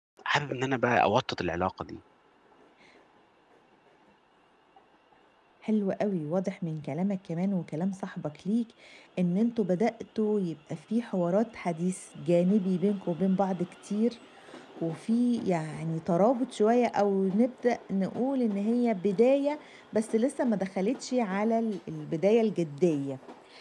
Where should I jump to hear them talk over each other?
none

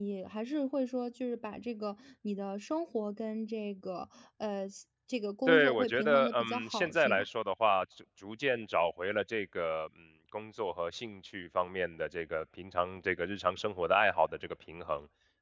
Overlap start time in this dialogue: 5.5 s

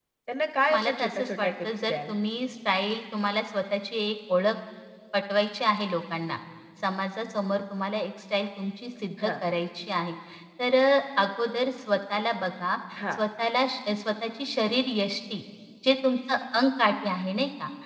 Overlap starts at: 0.7 s

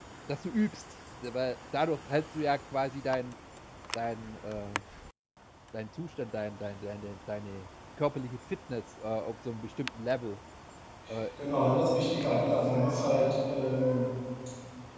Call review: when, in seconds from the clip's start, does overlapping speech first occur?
none

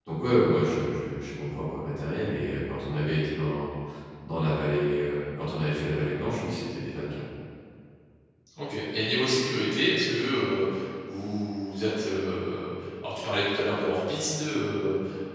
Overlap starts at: none

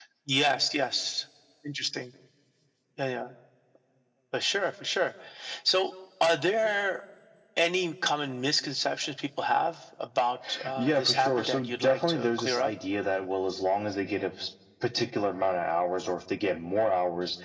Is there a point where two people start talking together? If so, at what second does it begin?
10.8 s

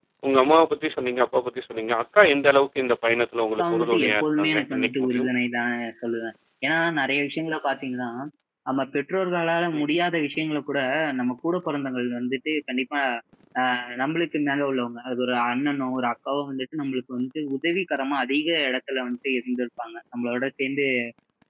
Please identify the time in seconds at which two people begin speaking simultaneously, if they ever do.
3.6 s

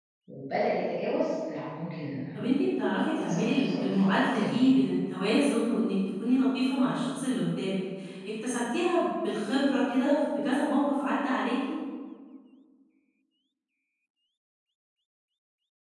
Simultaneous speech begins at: 3.1 s

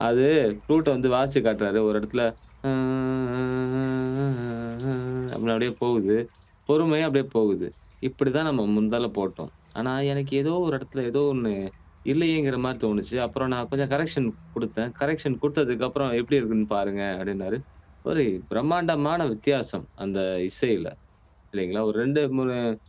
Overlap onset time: none

